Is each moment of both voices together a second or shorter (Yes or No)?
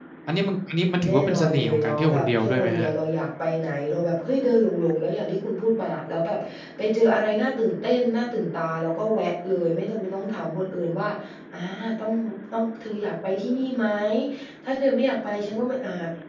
No